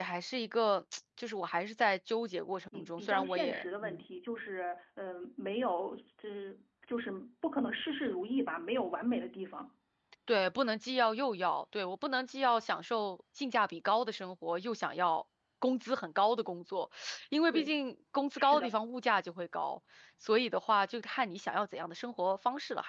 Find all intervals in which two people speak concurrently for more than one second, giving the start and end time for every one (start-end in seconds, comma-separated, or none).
2.8-4.0